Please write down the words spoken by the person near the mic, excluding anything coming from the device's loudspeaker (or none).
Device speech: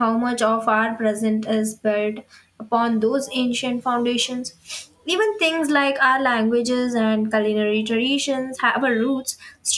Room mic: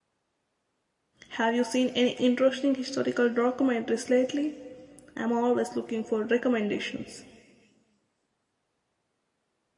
Have you seen any interesting historical documentaries lately? I'm always looking for recommendations.